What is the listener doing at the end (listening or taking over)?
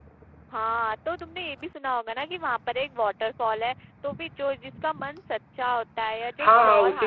taking over